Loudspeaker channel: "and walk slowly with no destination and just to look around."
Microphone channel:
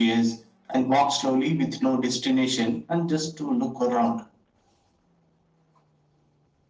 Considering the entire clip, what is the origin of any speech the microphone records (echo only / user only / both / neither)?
echo only